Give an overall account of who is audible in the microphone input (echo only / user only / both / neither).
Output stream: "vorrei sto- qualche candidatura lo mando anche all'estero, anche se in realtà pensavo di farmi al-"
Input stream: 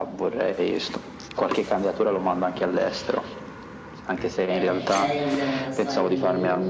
both